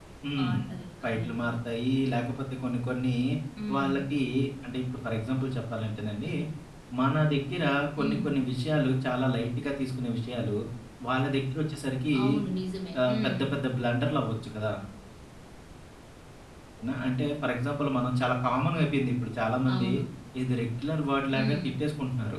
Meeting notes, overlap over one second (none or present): none